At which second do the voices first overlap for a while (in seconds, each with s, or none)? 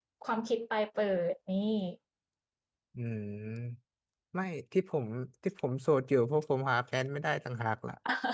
none